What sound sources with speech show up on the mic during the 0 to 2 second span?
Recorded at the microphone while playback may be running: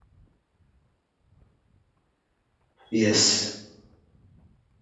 neither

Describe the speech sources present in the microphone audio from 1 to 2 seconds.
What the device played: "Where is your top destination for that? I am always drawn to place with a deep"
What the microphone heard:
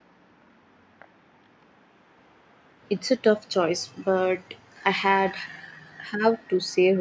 neither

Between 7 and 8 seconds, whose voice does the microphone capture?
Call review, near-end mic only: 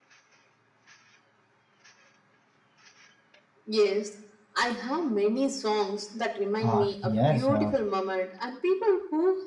both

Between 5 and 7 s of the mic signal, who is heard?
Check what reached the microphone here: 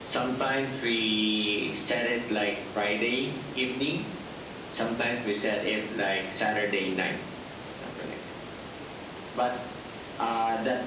echo only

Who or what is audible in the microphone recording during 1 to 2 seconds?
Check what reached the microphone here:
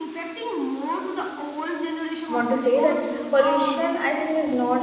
echo only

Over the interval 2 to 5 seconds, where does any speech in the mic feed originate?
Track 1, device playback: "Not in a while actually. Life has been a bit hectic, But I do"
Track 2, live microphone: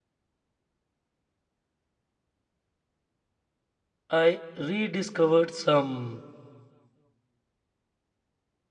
user only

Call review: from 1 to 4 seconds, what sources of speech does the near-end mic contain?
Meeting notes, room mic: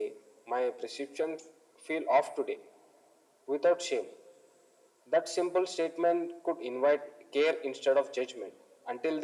echo only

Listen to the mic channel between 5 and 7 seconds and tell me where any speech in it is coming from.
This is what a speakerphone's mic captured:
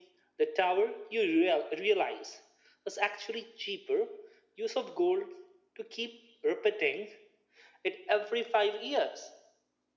echo only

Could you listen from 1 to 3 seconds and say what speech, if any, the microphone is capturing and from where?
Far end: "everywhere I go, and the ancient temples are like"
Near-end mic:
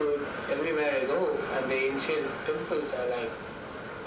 echo only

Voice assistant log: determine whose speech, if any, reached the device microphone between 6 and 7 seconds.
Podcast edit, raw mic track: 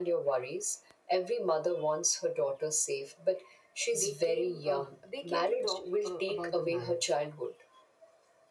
both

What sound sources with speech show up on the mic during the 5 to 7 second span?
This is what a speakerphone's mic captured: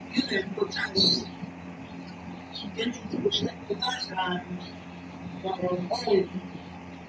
echo only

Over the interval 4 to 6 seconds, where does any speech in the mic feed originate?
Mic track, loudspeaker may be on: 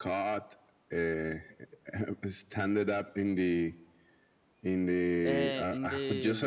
both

